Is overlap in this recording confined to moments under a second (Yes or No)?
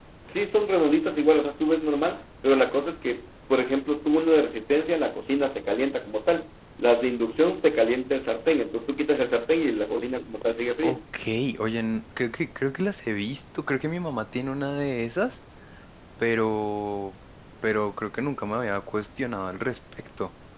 Yes